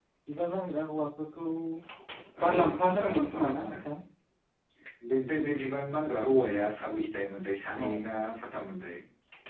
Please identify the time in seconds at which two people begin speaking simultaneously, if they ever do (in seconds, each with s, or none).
2.4 s